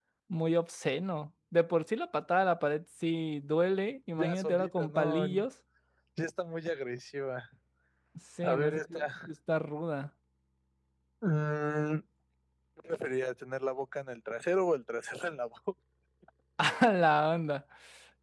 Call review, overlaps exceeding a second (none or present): present